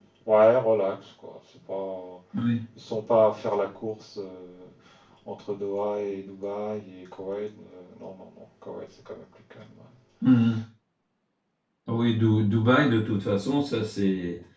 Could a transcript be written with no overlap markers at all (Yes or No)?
Yes